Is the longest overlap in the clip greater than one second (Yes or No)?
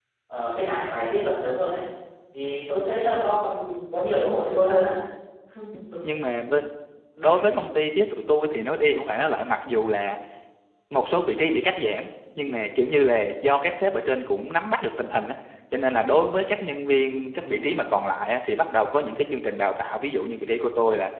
No